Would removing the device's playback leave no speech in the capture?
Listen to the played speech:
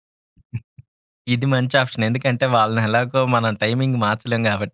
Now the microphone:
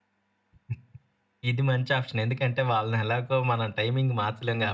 Yes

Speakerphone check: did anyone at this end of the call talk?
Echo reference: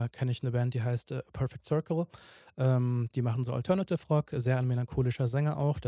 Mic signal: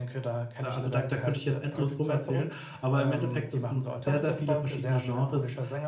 Yes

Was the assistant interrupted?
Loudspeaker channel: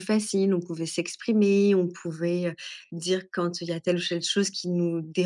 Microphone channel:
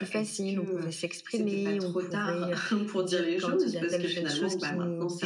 Yes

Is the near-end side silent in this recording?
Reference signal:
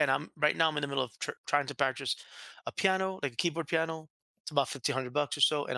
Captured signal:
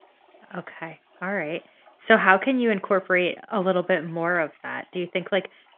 No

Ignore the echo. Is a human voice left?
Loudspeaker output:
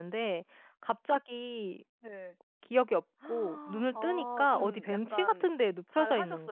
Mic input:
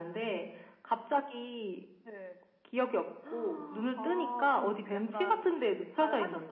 No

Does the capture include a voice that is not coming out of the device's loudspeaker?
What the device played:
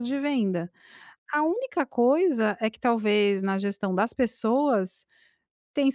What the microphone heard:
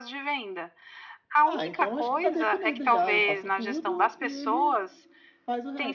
Yes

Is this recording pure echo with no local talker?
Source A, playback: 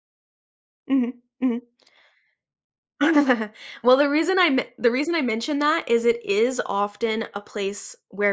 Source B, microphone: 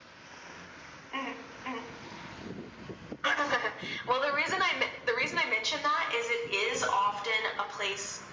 Yes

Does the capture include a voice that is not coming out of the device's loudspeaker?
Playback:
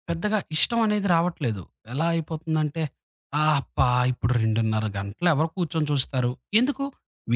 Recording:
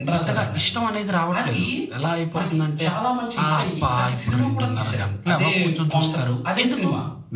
Yes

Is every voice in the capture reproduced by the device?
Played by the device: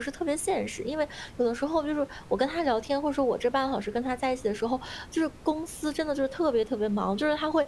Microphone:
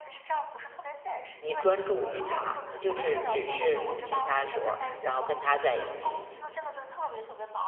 No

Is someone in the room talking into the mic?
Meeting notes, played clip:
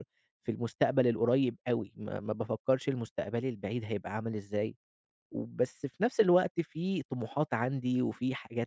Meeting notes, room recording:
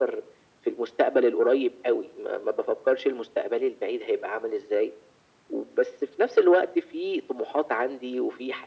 No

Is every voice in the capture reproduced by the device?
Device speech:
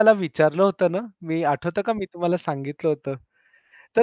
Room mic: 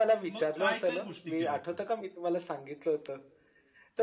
No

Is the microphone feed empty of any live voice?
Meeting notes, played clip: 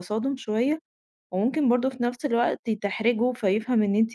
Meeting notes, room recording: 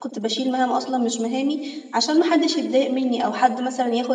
No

